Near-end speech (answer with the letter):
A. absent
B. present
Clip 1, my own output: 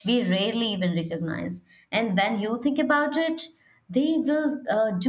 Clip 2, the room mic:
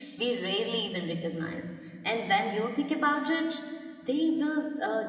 A